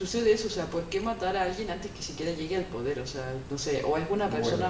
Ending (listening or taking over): listening